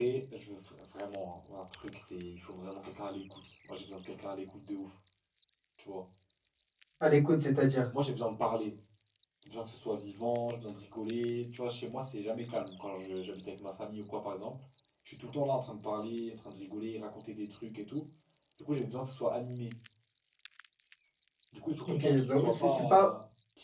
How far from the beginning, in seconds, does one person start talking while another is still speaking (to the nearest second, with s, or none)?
22 s